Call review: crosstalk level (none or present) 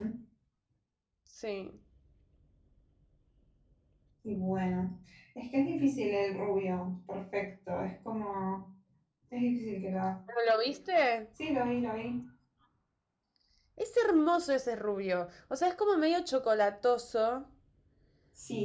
none